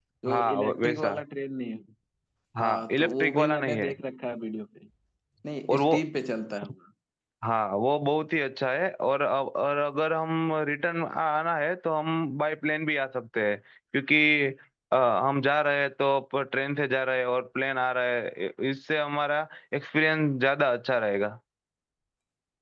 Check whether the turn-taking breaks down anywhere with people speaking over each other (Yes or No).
Yes